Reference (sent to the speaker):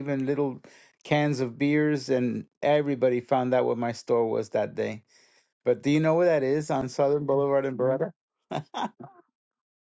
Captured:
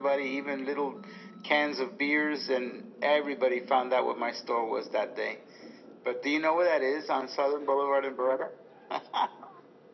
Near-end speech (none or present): none